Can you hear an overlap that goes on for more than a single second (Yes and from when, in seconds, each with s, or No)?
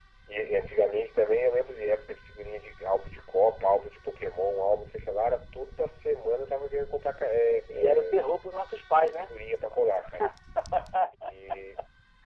No